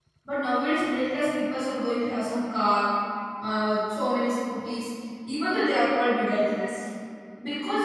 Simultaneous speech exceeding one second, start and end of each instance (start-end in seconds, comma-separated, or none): none